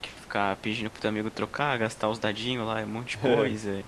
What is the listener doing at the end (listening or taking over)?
listening